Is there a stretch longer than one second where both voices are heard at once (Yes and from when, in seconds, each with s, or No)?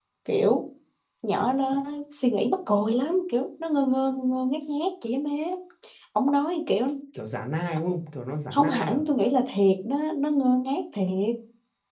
No